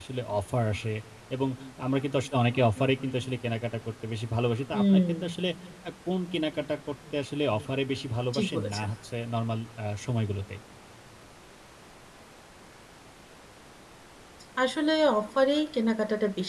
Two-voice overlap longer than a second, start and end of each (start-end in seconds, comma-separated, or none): none